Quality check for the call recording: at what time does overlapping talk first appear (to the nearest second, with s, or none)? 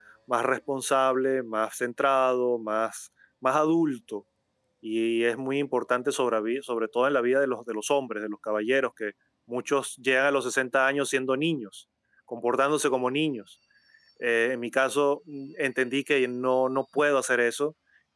none